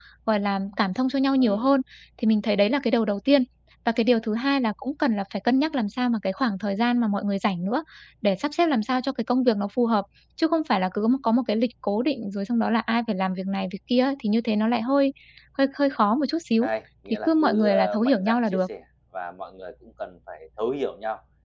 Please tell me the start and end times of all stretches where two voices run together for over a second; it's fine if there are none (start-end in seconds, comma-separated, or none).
17.3-18.6